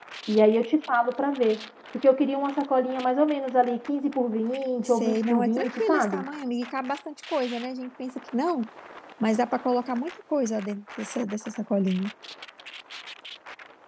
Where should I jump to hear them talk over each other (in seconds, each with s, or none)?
4.8 s